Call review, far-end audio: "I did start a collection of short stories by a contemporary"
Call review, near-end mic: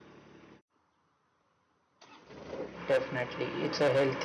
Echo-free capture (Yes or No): Yes